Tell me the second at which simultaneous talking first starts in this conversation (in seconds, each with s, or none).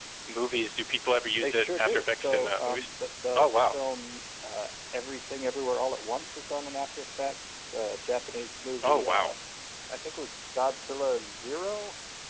1.4 s